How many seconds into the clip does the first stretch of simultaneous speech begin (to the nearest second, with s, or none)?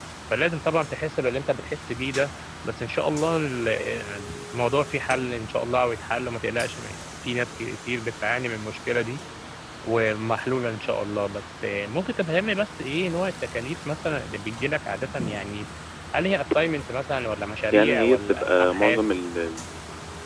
18 s